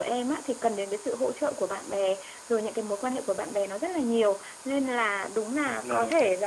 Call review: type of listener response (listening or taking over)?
listening